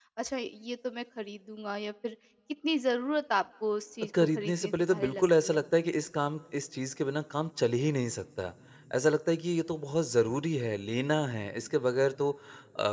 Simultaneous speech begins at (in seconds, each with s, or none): 4.1 s